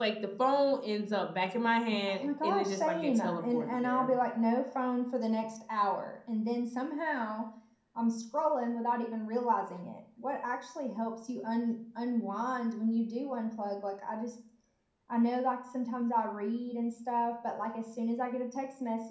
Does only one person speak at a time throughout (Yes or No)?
No